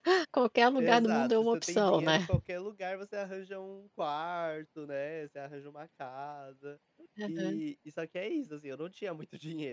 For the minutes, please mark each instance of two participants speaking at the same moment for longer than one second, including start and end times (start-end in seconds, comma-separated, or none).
0.8-2.3